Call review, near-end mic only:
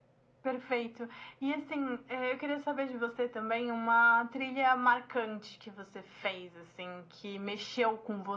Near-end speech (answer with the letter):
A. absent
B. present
A